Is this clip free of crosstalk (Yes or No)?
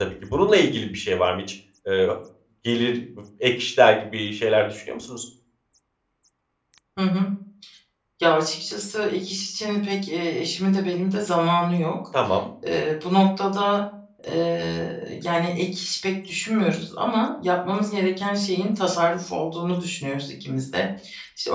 Yes